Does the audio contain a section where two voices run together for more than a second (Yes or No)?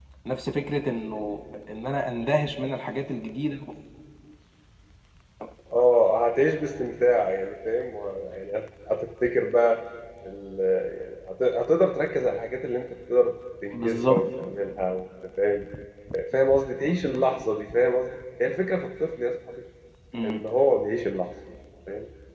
No